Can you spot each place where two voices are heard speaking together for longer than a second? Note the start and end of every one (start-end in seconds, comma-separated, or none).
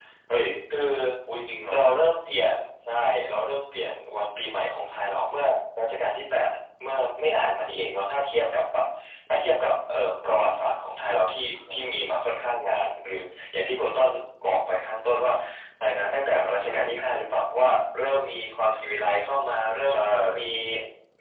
none